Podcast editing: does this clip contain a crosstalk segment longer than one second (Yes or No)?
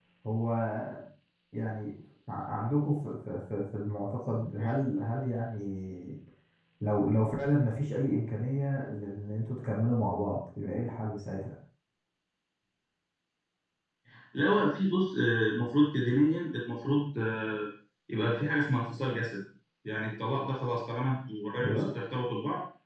No